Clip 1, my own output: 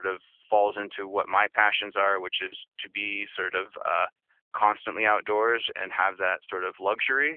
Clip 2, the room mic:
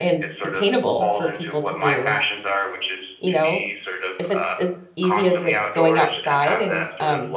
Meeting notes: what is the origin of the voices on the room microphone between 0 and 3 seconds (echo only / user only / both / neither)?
both